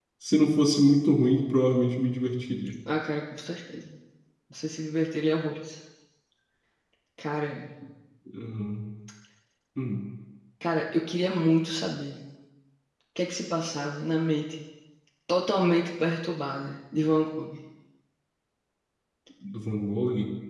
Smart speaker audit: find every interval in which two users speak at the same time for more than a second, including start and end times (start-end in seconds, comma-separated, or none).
none